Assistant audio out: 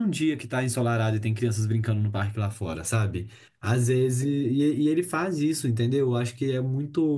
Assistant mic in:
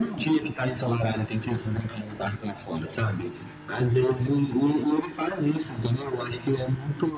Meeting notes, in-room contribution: none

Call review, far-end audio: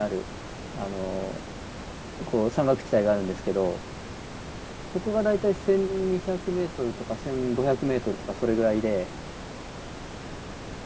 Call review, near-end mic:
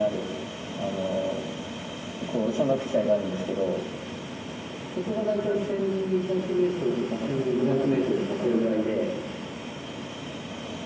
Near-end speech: none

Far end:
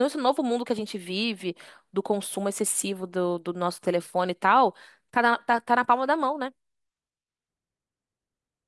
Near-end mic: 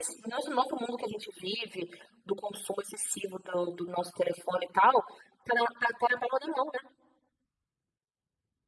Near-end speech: none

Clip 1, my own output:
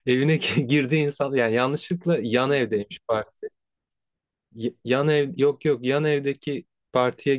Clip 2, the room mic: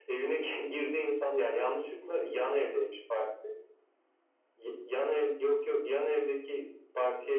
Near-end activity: none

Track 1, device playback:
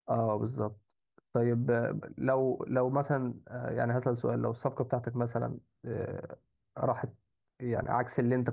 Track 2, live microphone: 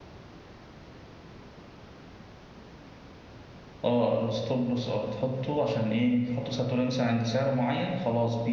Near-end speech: present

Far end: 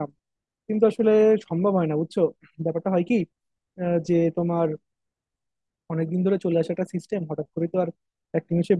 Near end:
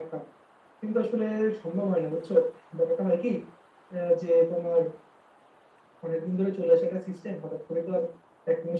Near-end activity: none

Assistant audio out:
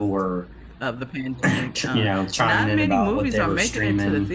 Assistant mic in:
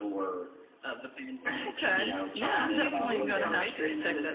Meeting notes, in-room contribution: present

